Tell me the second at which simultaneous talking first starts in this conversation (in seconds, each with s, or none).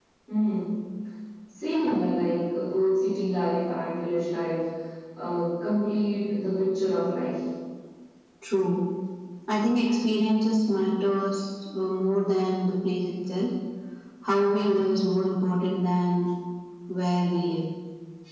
none